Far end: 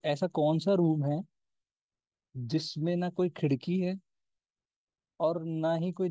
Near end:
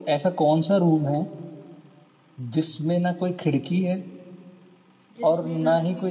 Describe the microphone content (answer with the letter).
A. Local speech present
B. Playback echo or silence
A